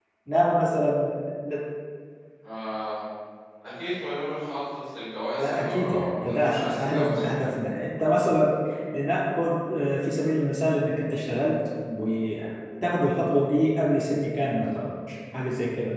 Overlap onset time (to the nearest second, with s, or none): 5 s